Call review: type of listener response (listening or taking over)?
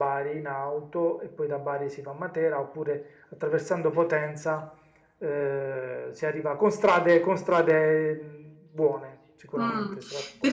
taking over